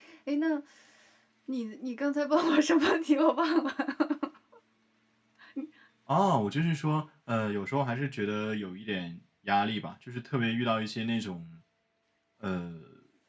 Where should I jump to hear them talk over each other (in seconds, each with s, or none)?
none